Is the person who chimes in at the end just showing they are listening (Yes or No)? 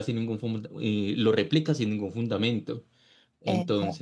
Yes